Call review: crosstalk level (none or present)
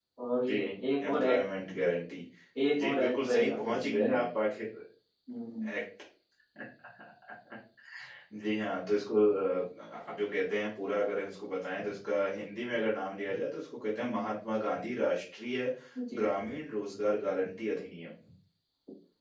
present